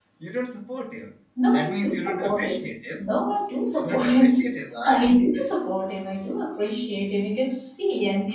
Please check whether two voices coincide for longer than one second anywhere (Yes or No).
Yes